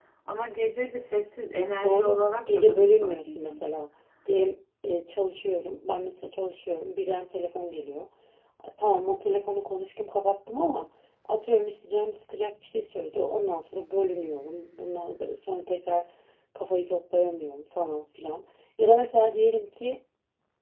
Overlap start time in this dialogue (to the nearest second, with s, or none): 2 s